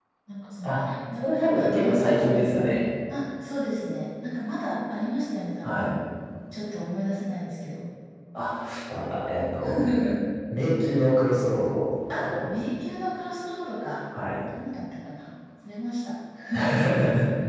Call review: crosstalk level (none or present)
present